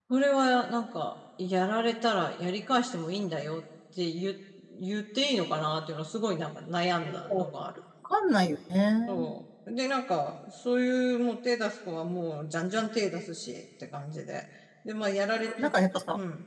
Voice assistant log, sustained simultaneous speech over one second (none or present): none